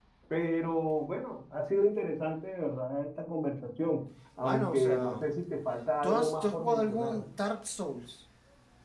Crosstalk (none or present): present